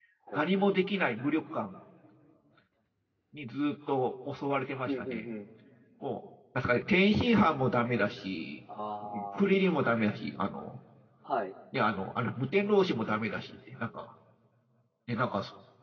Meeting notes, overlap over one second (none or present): none